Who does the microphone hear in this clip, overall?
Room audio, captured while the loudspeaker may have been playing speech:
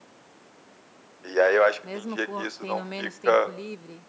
both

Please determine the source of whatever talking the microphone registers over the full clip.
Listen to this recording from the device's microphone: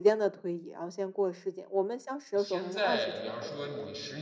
both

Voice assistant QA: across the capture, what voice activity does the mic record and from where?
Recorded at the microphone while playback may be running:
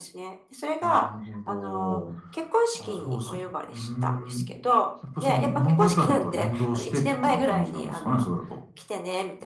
echo only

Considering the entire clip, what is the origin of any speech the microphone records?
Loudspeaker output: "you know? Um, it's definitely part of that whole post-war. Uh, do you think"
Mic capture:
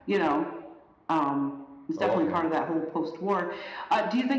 both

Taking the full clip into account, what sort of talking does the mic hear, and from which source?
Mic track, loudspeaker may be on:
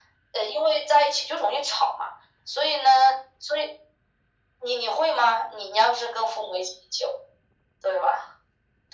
echo only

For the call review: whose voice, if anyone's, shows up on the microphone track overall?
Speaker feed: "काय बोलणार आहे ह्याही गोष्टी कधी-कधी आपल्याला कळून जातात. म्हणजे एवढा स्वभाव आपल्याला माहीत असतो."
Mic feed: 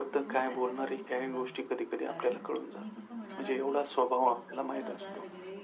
both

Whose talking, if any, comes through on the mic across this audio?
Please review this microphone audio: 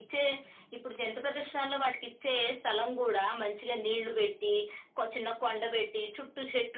echo only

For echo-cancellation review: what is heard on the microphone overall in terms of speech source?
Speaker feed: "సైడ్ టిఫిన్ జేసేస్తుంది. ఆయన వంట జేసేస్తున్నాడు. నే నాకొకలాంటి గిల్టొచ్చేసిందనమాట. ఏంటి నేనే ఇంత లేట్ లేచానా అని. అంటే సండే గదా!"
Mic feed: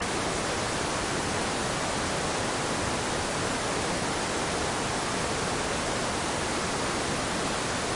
neither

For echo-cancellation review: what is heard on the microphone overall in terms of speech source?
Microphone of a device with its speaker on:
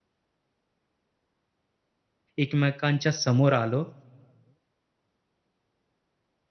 user only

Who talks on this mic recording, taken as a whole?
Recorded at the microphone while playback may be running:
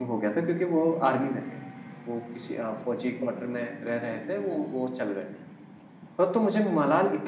user only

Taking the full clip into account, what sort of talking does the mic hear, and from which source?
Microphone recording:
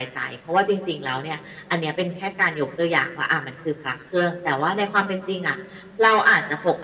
echo only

